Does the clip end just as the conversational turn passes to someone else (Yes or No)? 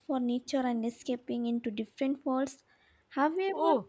Yes